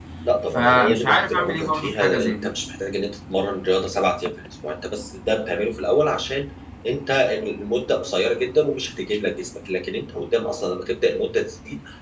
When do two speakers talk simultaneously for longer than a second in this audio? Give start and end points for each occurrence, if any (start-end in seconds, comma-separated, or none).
0.5-2.5